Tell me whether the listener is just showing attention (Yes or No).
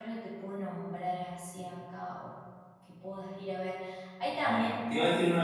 No